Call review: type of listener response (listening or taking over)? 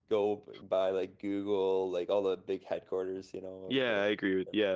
taking over